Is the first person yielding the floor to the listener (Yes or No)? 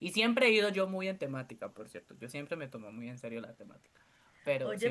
Yes